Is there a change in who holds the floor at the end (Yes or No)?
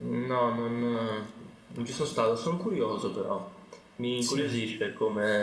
No